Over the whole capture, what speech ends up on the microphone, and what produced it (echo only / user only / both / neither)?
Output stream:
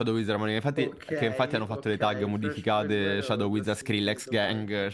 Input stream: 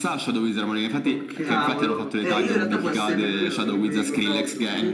both